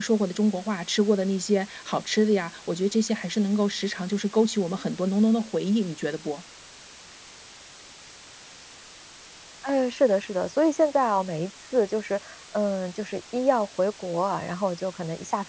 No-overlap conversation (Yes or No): Yes